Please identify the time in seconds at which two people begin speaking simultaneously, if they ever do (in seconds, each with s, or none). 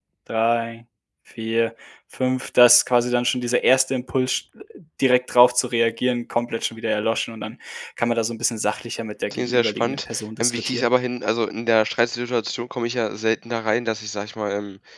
9.3 s